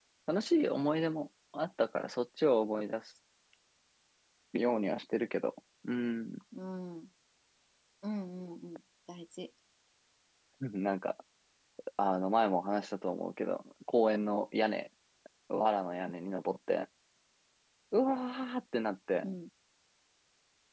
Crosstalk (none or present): none